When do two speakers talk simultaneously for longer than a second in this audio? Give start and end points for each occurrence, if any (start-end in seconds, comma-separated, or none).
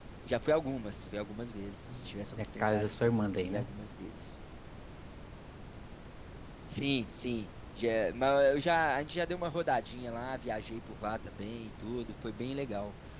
1.9-3.7